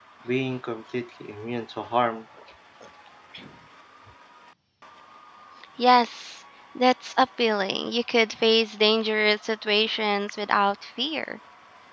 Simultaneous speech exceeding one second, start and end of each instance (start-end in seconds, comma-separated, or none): none